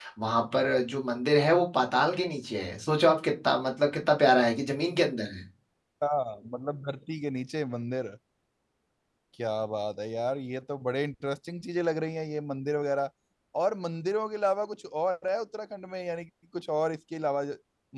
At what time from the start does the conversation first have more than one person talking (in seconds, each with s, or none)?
none